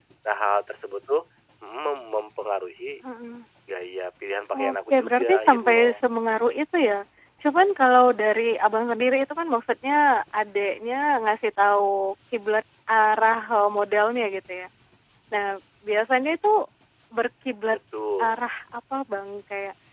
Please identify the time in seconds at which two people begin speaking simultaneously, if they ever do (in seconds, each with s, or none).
4.5 s